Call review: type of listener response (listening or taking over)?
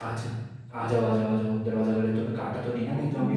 taking over